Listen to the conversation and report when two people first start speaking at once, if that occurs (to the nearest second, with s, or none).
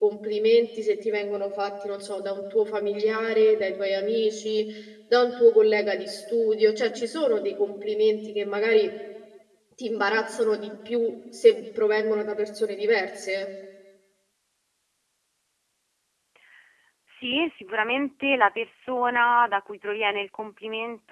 none